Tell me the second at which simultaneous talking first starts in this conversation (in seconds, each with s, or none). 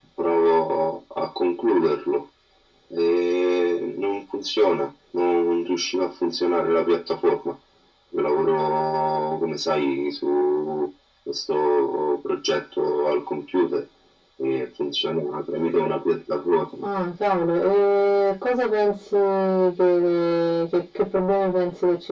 none